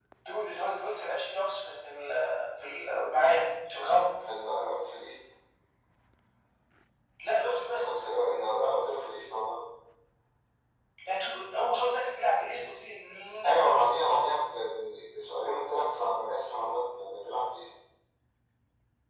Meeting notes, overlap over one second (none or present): none